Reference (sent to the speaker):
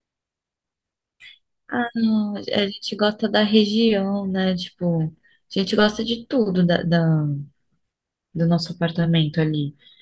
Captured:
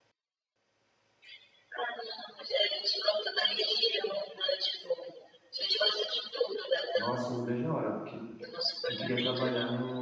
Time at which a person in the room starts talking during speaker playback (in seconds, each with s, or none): 6.9 s